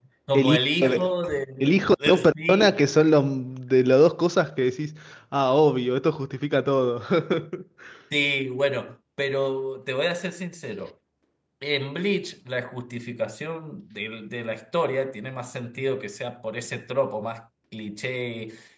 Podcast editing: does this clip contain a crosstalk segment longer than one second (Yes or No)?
Yes